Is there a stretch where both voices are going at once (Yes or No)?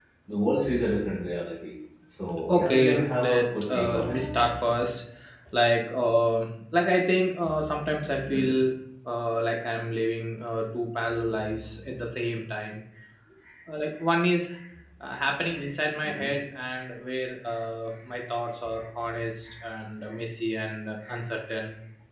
Yes